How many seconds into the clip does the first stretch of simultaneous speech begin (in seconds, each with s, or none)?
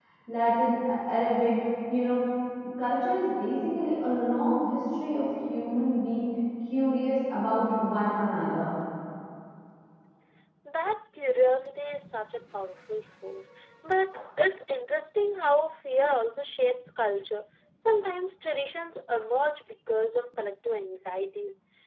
none